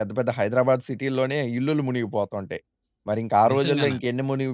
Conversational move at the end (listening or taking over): listening